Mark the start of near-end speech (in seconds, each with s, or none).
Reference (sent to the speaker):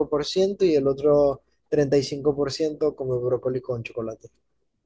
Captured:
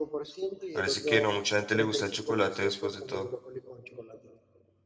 0.7 s